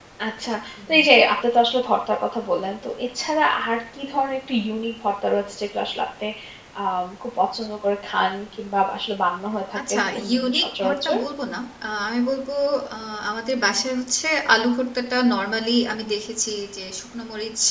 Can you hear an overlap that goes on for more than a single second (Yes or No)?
Yes